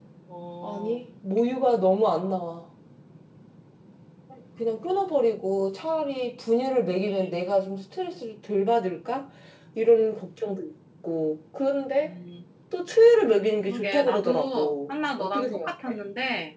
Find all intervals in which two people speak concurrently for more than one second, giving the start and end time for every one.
13.7-15.9

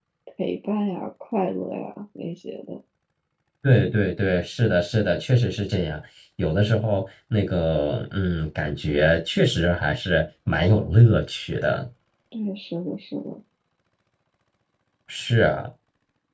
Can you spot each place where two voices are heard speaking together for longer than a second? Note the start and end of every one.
none

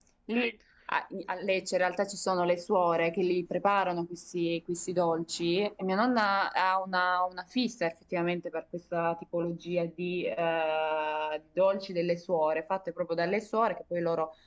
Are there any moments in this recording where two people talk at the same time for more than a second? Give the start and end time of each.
none

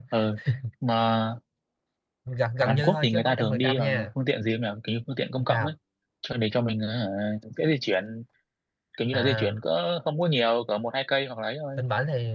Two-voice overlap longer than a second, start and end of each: 2.6-4.1

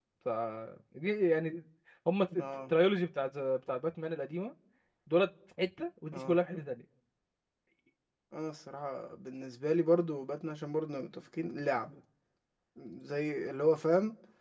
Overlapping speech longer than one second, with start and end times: none

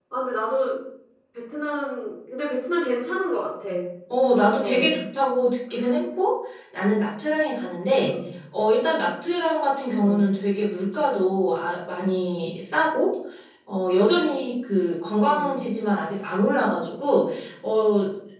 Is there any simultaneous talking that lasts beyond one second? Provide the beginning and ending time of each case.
none

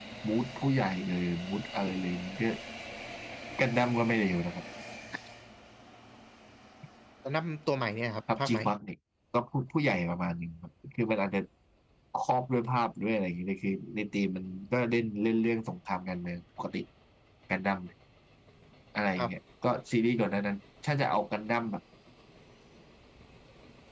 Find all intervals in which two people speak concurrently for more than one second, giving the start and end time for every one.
none

